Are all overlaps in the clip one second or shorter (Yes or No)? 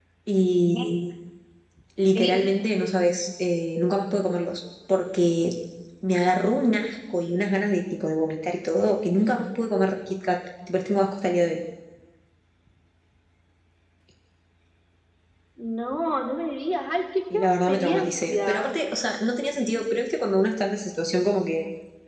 No